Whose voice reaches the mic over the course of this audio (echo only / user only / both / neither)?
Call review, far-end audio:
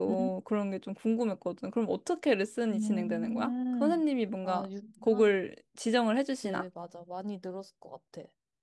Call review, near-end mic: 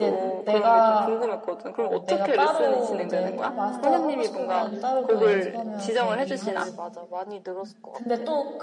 both